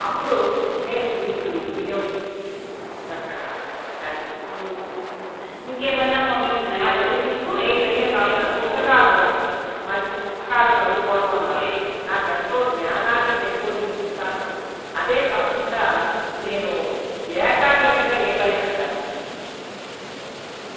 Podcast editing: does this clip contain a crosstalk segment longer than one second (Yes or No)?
Yes